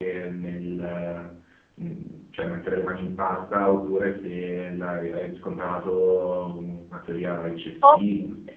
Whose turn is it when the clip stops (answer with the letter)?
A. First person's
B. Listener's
B